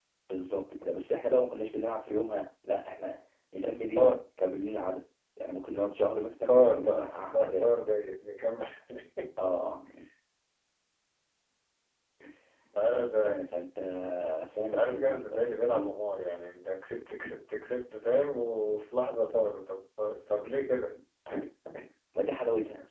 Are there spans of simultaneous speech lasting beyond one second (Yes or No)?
Yes